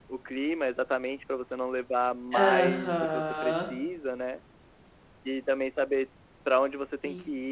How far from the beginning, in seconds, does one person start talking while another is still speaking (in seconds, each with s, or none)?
2.3 s